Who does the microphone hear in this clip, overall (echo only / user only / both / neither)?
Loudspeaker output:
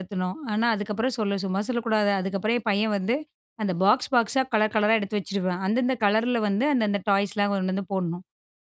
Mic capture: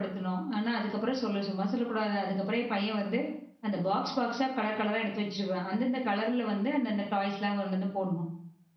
echo only